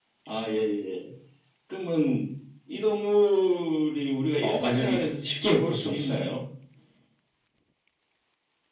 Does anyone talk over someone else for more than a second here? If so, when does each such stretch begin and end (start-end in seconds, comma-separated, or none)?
4.4-6.2